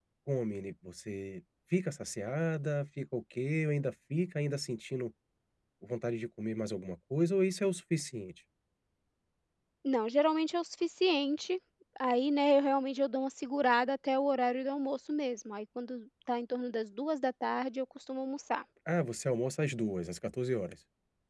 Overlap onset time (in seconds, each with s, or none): none